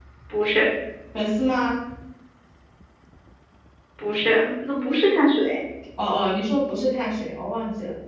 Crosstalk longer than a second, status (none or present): none